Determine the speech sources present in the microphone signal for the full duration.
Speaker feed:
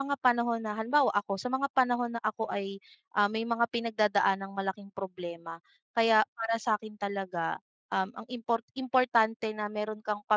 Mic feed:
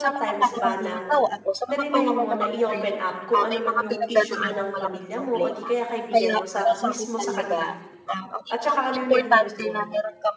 both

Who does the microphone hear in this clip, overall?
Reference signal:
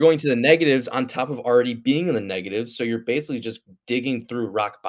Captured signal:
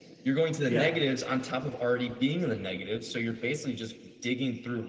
both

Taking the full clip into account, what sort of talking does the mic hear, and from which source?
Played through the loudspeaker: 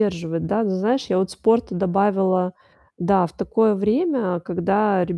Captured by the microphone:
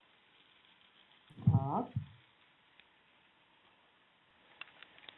user only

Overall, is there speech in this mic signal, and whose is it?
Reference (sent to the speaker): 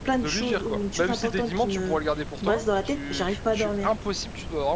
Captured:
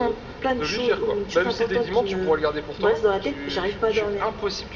echo only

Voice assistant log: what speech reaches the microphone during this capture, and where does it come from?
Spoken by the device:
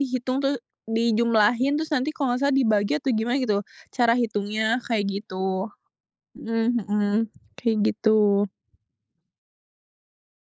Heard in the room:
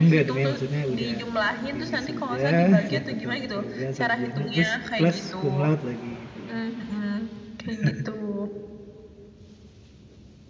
both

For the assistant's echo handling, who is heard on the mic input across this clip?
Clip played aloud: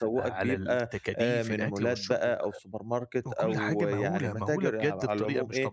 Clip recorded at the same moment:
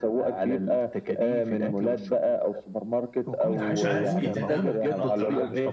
both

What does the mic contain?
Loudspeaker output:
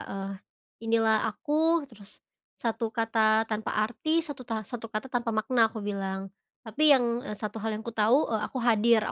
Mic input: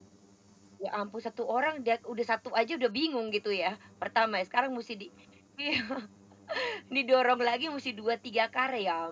user only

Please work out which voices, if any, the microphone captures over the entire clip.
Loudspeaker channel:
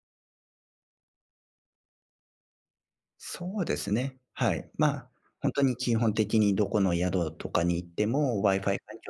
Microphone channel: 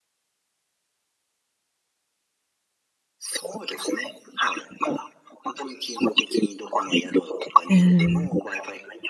both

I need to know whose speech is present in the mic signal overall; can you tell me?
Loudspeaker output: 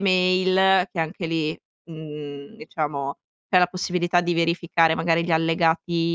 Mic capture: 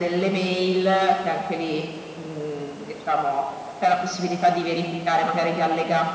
echo only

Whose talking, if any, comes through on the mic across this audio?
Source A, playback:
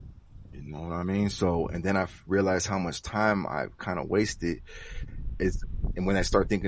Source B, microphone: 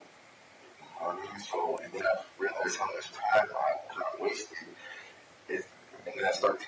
echo only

